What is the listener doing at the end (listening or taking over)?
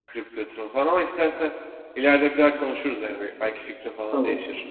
taking over